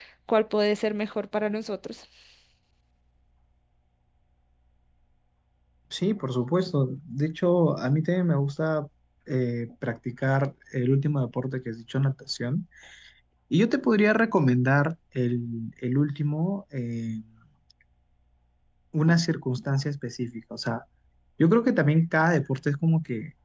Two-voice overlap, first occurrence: none

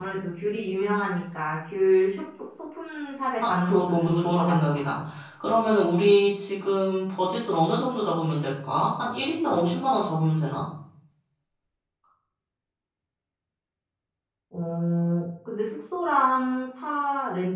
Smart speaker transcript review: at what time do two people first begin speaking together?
3.4 s

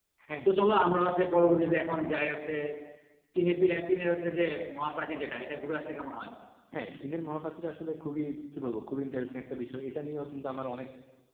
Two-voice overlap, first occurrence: none

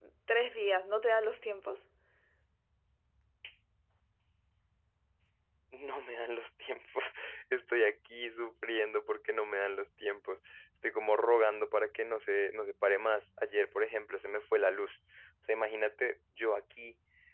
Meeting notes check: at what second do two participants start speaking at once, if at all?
none

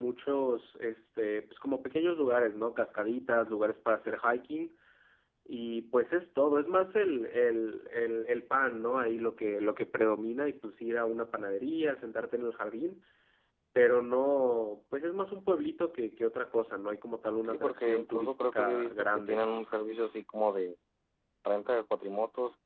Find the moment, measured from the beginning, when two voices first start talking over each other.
17.4 s

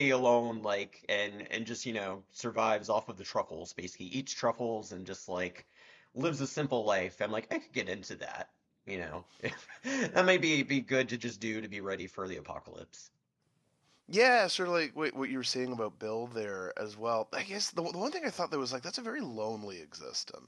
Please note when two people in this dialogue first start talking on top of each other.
none

